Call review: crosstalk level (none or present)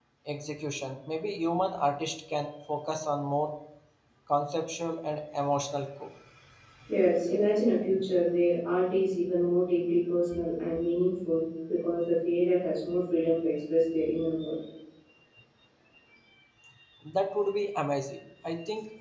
none